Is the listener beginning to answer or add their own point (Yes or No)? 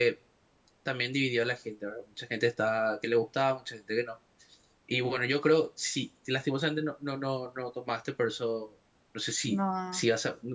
No